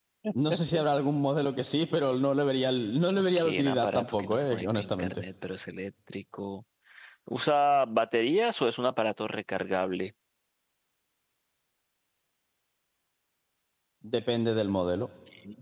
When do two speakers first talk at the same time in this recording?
3.4 s

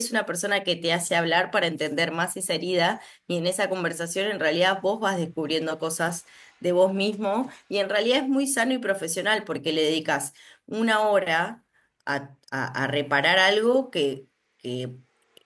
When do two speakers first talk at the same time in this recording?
none

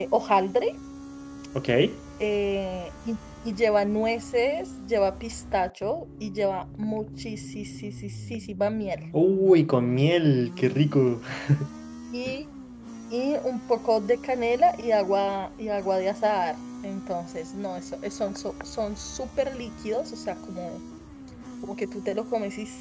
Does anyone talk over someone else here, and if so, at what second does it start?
none

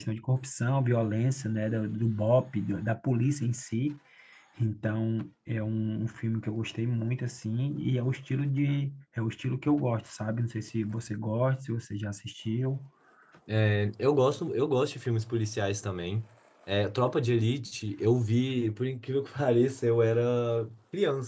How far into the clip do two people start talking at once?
none

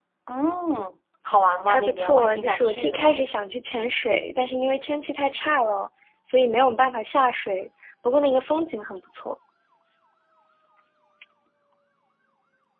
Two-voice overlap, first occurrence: 1.7 s

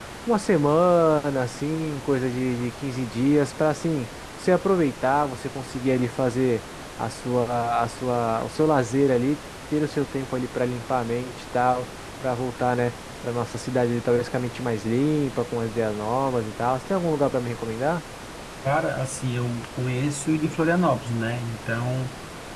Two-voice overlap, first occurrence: none

